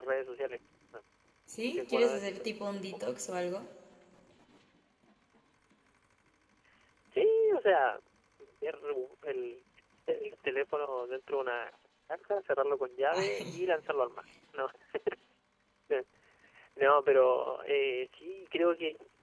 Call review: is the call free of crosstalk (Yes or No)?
No